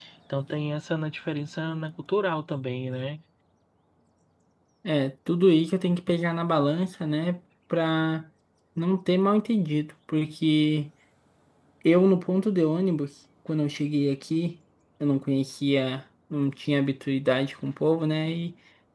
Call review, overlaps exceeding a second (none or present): none